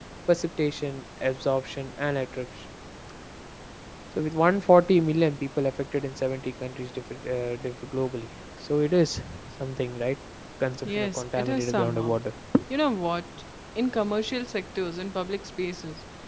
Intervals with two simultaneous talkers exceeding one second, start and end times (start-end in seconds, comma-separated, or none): 10.8-12.2